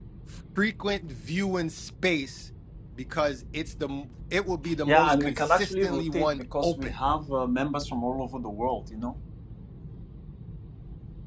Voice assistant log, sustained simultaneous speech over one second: present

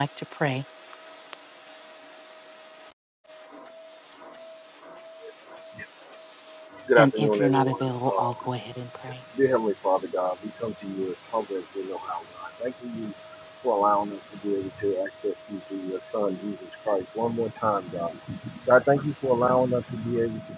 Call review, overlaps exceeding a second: present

